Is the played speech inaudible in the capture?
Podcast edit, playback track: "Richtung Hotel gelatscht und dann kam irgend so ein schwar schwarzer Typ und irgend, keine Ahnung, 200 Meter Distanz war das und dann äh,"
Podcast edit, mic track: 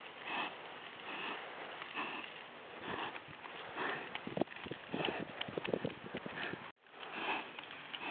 Yes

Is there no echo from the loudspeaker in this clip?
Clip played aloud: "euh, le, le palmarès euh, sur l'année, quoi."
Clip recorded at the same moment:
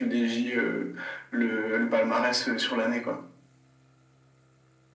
No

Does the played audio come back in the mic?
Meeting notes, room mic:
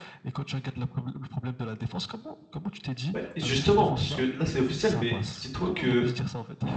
Yes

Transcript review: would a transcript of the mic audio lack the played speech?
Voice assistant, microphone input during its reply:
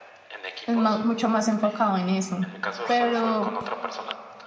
No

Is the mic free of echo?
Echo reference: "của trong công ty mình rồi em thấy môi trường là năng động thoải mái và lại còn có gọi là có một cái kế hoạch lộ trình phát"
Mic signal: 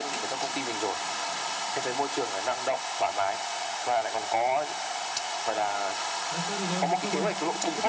No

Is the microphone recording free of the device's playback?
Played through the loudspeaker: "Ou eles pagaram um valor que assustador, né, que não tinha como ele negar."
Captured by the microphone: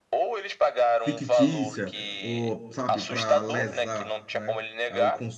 No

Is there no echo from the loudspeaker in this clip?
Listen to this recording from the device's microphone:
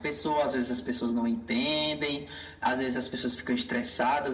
No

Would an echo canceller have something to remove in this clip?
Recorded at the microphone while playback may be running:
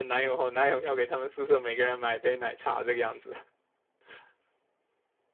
No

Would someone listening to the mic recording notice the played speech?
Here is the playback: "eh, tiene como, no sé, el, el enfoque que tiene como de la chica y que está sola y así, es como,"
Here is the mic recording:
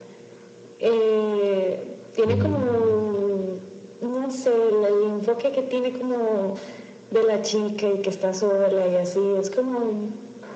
Yes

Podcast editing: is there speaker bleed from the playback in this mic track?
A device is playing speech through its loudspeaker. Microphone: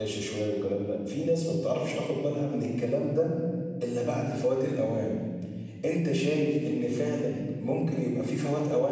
No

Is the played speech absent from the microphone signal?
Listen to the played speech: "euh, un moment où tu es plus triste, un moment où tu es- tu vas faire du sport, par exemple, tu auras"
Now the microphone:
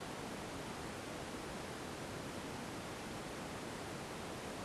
Yes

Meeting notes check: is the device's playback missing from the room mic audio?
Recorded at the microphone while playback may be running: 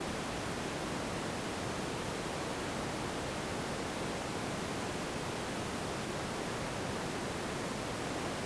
Yes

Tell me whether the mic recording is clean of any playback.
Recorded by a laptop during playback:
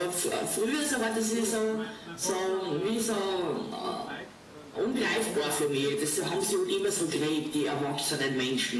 No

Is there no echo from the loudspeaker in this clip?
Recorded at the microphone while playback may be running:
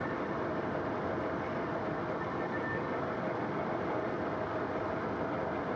Yes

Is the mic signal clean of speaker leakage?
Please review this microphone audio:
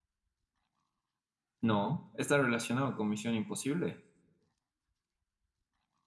Yes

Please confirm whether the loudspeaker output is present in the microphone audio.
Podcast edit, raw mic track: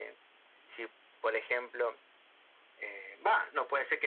Yes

